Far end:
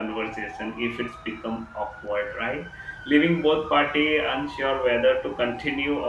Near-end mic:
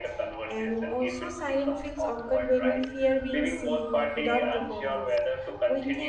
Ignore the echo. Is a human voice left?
Yes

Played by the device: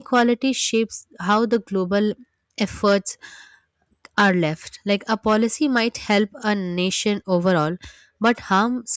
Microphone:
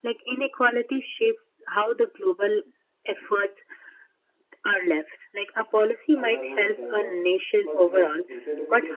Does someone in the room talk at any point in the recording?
Yes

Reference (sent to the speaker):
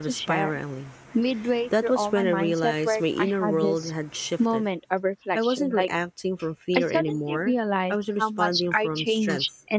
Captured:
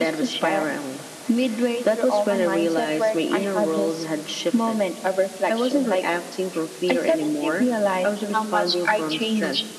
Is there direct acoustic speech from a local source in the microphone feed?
No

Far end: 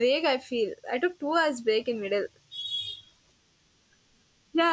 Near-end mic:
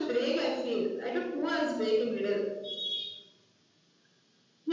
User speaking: No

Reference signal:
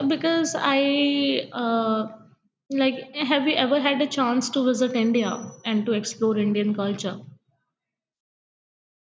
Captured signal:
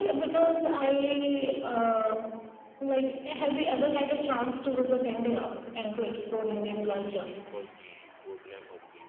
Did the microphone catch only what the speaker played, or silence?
No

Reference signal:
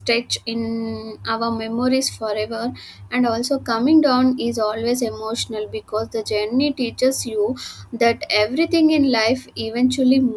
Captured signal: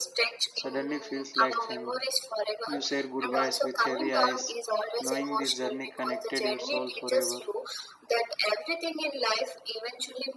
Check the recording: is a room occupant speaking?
Yes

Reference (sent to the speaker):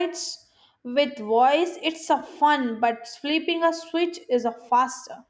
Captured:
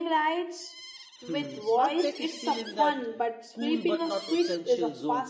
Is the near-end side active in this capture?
Yes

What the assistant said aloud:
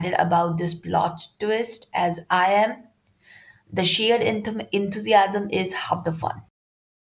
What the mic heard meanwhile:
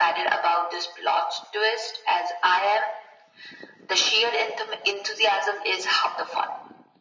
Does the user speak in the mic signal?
No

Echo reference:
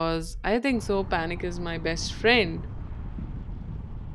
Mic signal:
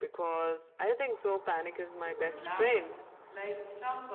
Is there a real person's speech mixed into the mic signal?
Yes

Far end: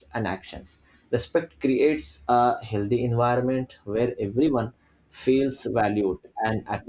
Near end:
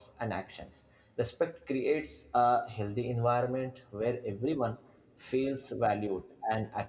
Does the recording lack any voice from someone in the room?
Yes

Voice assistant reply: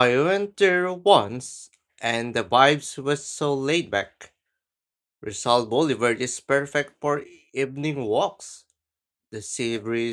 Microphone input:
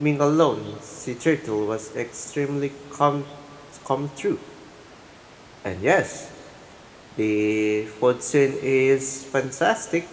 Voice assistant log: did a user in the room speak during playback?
Yes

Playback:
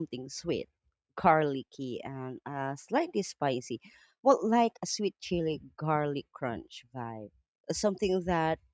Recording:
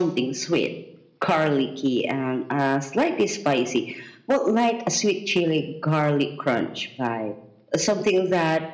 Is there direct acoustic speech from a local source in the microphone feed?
No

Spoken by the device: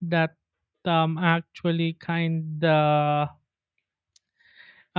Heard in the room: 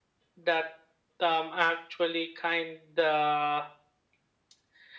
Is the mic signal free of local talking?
Yes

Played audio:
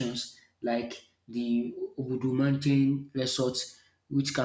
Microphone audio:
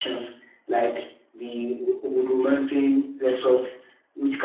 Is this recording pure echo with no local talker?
Yes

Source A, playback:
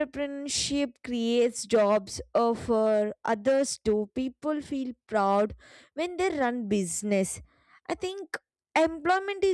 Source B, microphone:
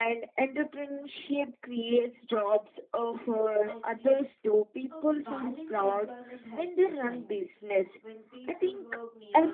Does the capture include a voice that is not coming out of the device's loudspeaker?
Yes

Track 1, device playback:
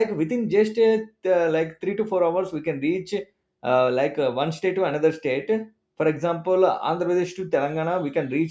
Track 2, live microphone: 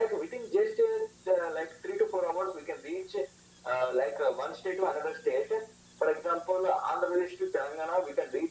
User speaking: No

